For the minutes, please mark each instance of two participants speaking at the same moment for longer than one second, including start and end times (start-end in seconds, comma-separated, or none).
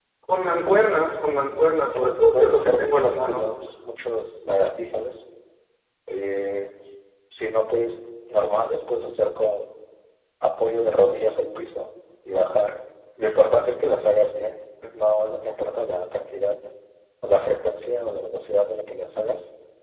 1.9-3.4